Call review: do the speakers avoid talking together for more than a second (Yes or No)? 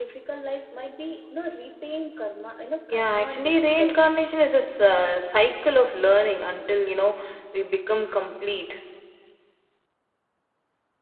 No